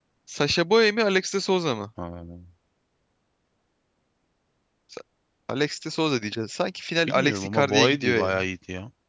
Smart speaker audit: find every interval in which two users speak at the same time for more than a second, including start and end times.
7.1-8.4

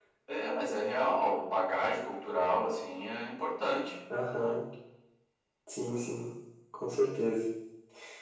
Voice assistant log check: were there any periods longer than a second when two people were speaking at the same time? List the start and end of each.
none

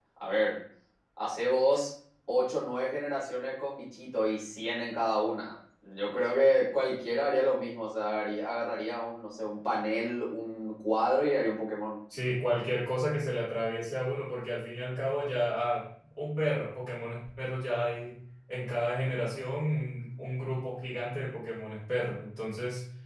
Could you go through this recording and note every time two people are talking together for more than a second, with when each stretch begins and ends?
none

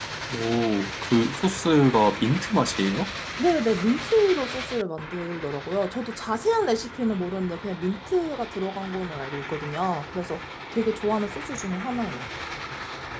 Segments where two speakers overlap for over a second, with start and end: none

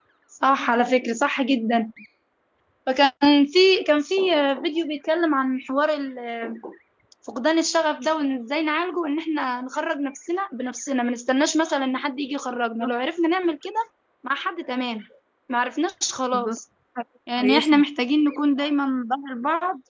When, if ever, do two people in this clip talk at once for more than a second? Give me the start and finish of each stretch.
none

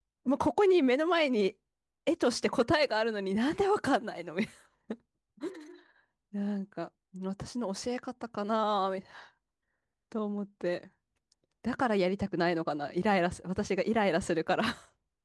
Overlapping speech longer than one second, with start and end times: none

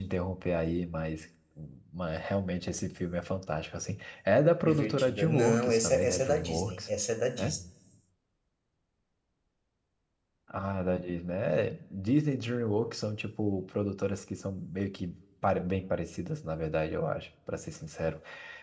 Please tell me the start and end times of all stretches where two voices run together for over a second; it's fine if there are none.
4.6-6.9

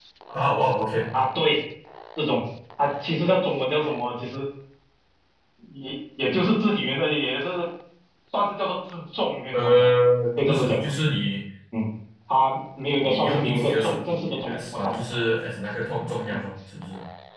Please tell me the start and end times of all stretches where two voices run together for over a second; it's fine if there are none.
13.0-15.0

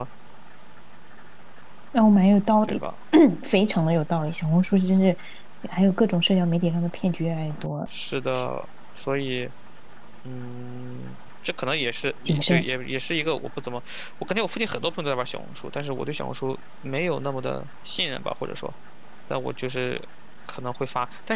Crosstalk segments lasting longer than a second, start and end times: none

